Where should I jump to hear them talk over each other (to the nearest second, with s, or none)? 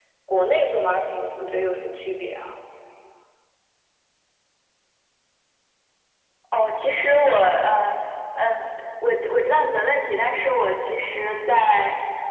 none